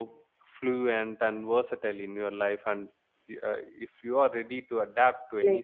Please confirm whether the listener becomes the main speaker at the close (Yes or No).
Yes